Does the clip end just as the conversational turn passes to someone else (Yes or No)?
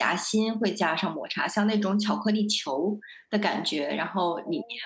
No